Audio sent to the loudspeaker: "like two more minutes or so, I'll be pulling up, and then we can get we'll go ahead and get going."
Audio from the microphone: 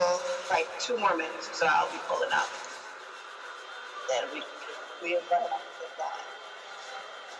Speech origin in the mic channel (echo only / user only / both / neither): echo only